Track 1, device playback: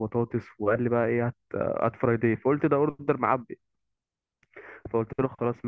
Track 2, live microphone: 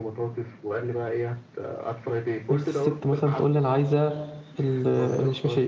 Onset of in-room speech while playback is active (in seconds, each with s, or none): 2.5 s